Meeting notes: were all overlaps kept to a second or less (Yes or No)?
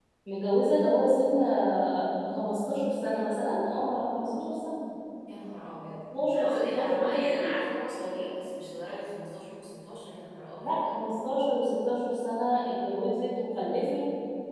No